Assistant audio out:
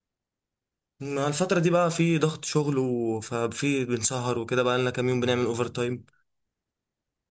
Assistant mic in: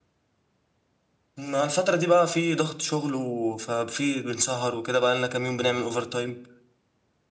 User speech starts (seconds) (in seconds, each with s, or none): none